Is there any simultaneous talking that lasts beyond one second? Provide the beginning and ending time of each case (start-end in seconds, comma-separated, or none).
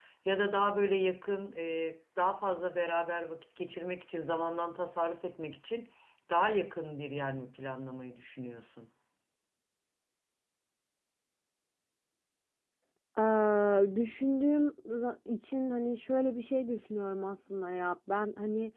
none